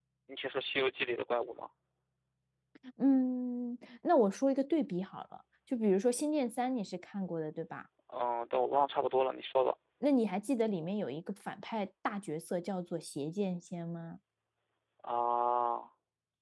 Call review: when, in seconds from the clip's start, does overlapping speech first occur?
none

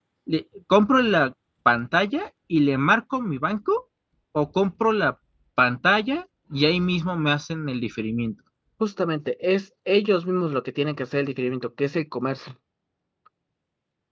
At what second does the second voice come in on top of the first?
none

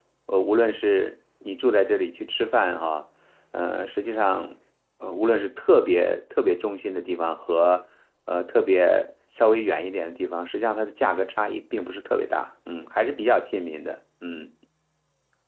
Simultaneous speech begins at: none

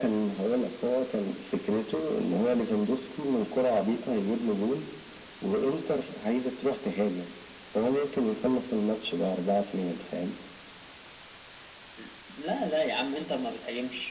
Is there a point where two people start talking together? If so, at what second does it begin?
none

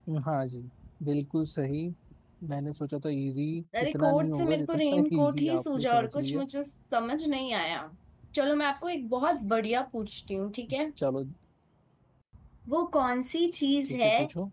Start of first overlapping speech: 3.8 s

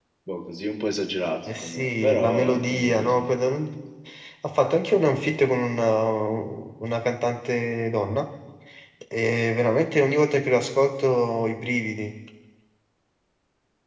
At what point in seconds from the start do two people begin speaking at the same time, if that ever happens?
1.5 s

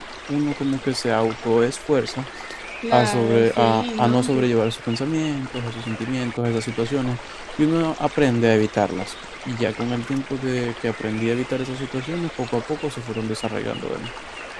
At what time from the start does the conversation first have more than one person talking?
2.9 s

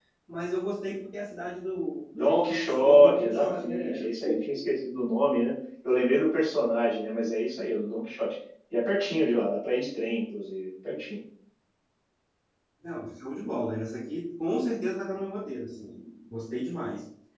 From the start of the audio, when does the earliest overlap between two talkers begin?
2.1 s

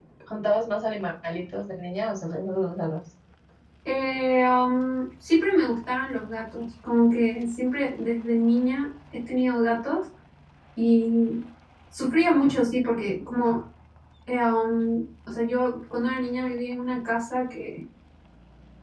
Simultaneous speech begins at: none

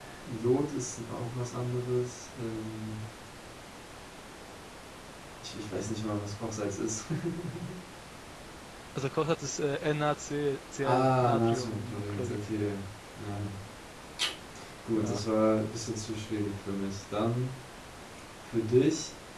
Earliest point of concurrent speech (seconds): 10.8 s

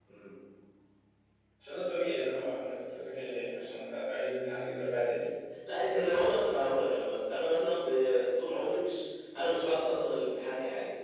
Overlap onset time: none

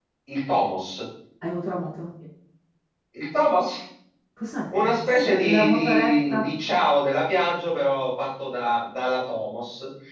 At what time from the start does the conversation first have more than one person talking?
4.8 s

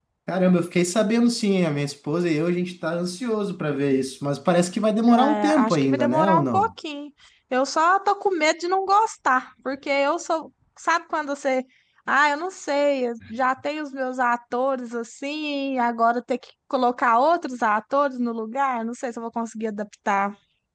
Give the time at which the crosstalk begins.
5.0 s

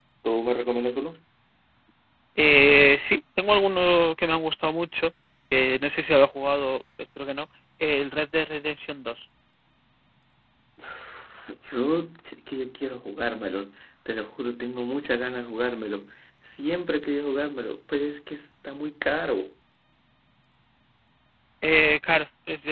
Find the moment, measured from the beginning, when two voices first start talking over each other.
none

